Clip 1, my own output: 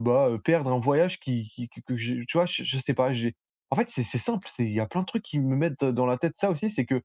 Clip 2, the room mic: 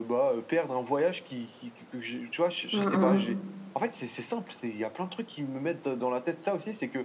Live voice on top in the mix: Yes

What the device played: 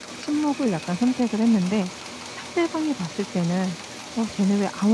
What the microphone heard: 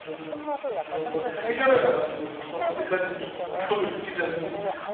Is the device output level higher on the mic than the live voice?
No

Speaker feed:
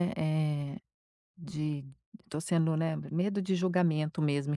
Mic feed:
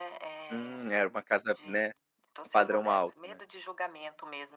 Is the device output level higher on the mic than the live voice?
No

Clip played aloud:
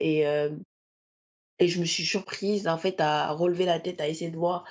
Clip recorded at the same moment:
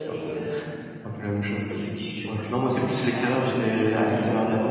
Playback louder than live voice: No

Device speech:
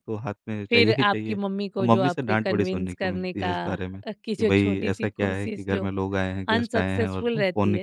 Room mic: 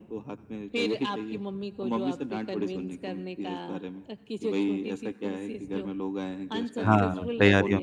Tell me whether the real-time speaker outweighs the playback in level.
Yes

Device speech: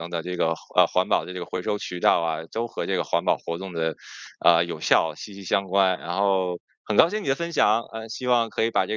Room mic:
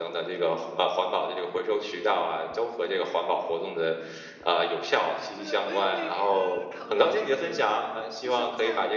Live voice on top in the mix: No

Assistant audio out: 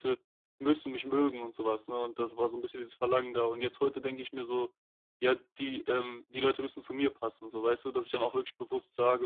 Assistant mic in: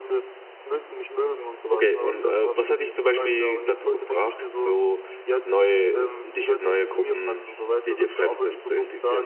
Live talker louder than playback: Yes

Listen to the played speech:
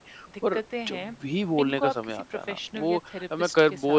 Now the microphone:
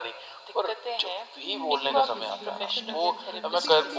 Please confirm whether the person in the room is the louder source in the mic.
No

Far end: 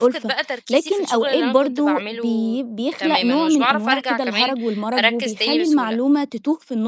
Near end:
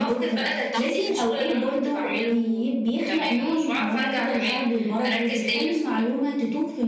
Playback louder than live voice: Yes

